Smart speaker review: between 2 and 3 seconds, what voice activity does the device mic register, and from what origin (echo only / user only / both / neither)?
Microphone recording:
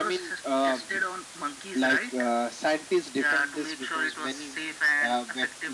echo only